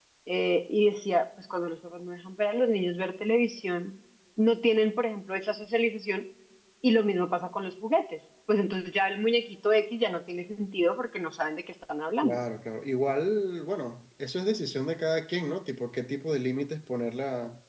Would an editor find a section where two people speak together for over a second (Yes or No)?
No